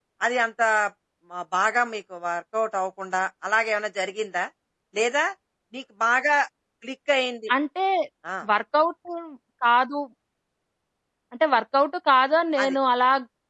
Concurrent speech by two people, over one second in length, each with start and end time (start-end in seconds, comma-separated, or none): none